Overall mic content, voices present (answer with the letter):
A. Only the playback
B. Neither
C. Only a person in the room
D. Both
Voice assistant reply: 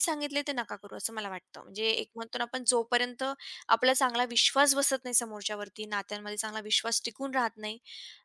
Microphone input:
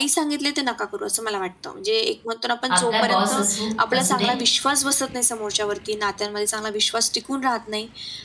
D